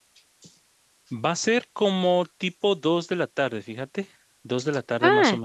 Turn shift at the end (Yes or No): Yes